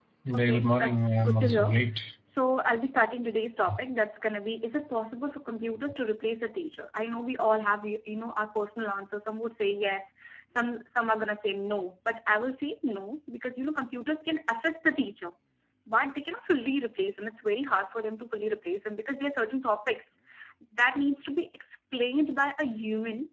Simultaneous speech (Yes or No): Yes